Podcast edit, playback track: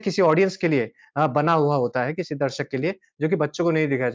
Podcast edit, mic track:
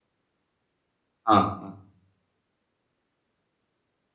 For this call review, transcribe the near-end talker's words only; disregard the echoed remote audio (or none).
हाँ, हाँ।